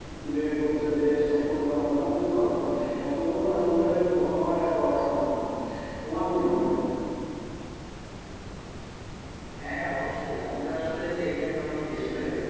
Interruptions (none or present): none